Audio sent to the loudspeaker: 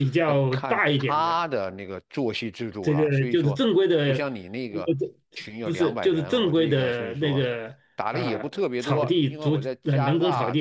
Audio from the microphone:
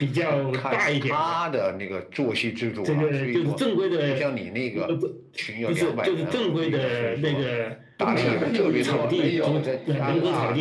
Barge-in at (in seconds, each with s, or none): 8.0 s